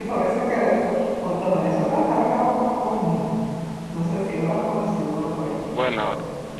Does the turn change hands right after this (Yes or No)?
Yes